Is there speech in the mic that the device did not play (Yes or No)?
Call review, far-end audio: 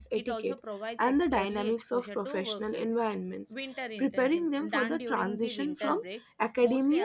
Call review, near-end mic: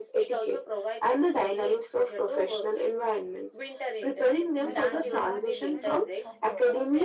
Yes